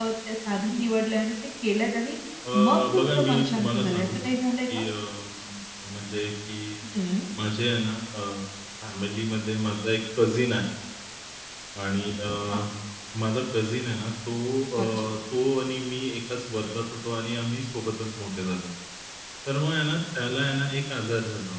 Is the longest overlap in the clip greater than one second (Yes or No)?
Yes